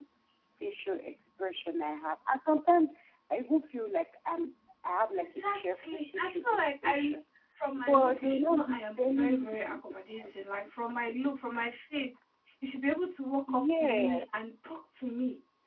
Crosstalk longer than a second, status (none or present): present